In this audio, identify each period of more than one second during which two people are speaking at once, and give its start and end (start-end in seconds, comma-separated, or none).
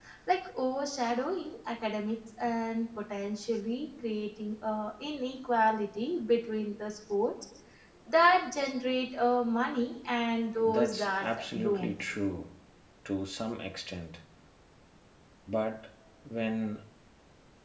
10.6-11.9